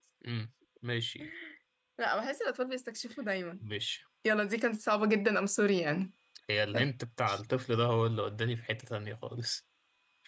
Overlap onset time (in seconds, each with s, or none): none